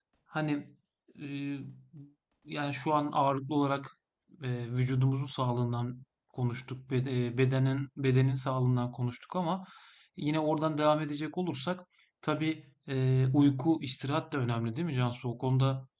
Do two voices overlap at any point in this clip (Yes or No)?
No